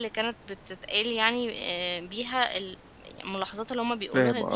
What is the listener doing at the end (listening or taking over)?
taking over